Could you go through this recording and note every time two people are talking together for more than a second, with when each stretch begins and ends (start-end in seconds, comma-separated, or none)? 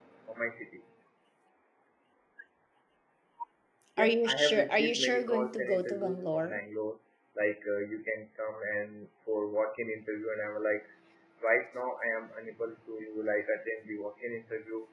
4.0-6.6